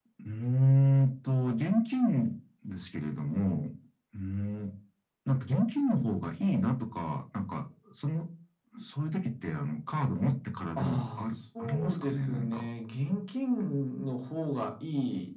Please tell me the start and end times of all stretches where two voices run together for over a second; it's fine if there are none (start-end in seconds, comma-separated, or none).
10.8-12.7